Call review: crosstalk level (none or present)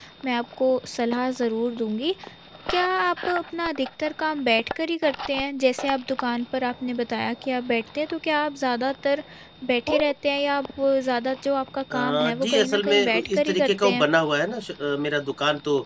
present